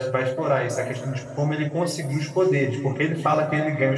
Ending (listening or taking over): listening